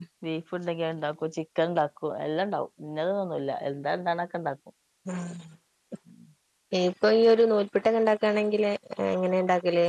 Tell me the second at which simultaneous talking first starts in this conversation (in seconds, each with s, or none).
none